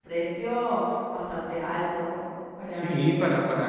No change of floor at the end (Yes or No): No